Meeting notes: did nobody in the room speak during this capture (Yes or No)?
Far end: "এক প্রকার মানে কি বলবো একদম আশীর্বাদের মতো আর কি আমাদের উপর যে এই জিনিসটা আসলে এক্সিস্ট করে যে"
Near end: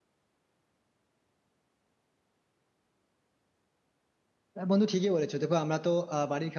No